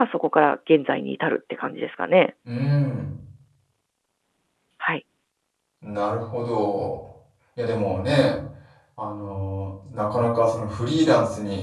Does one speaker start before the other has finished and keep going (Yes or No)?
No